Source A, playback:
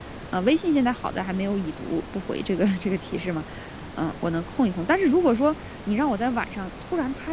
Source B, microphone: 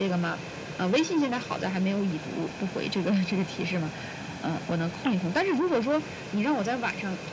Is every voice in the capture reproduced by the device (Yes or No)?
Yes